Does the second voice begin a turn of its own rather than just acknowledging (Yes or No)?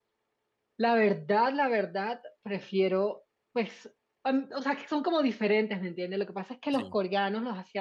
No